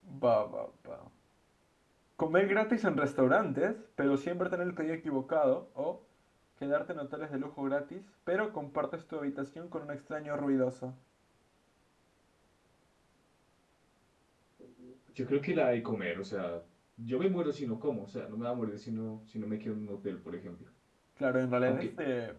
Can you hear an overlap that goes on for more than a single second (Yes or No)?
No